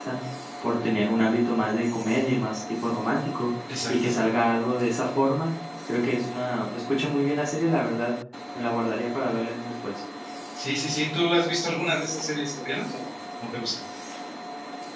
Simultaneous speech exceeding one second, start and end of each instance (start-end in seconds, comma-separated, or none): none